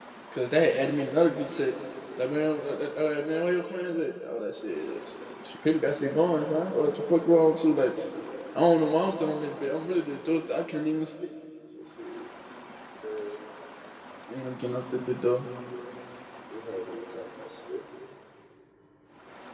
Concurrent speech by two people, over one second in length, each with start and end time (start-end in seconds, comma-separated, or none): none